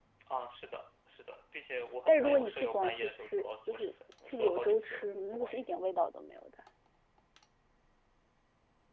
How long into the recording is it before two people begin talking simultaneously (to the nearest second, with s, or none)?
2 s